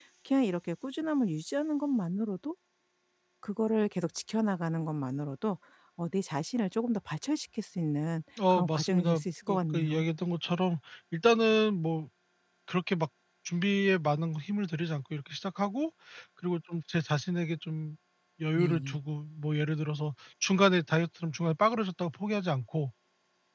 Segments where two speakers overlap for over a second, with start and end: 8.5-10.0

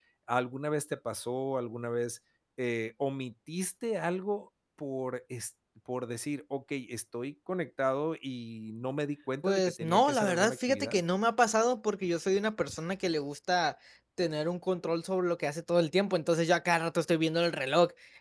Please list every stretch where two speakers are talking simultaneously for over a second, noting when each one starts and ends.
9.4-11.0

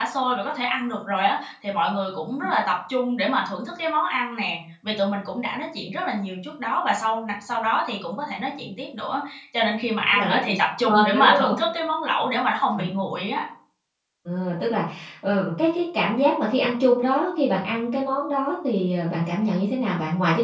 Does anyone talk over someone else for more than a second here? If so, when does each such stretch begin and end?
10.1-11.6

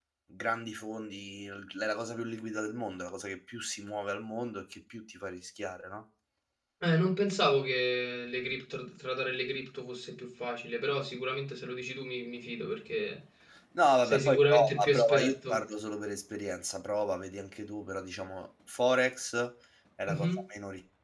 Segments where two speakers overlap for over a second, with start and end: 14.0-15.6

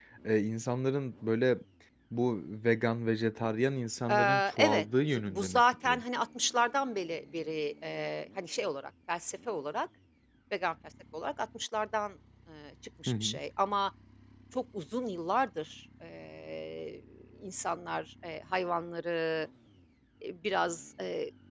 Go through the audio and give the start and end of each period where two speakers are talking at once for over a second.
4.1-6.0

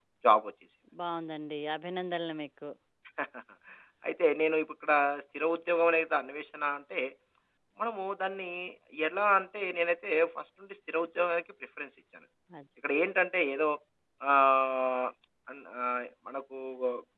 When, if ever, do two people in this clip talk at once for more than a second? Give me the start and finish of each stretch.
none

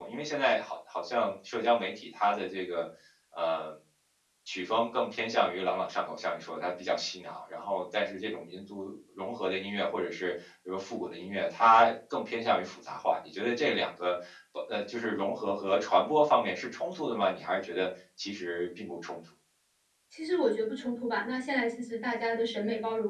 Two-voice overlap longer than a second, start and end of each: none

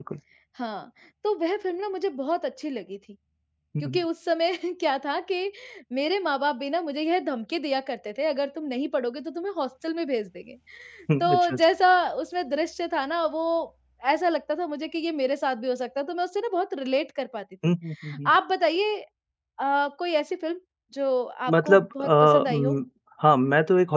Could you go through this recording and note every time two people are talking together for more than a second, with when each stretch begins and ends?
21.5-22.8

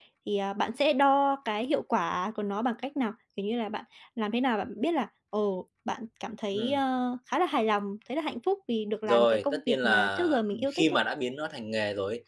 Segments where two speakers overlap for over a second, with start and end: 9.1-11.0

